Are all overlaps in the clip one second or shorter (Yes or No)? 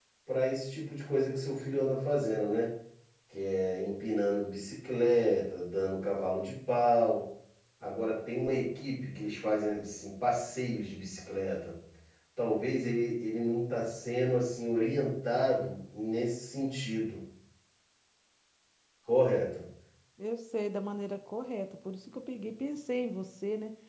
Yes